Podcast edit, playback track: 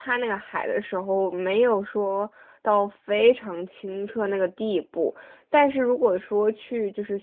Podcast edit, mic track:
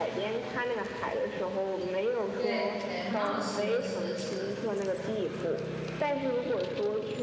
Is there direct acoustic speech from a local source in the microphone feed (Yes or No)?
Yes